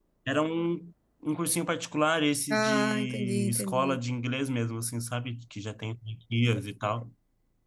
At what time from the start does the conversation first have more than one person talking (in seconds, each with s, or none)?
2.5 s